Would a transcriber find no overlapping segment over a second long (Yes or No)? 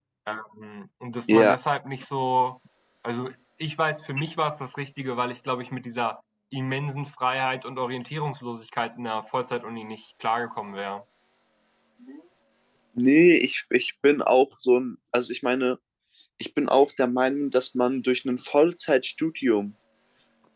Yes